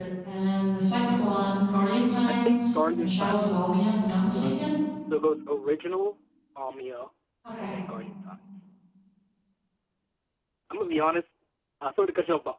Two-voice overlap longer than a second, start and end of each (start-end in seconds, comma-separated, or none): 2.3-3.8